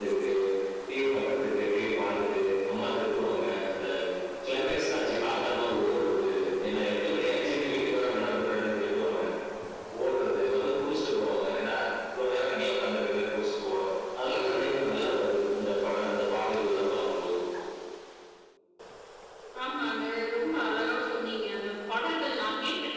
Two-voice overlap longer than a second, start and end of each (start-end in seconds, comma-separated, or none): none